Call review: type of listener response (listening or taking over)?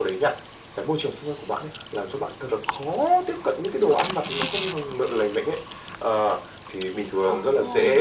listening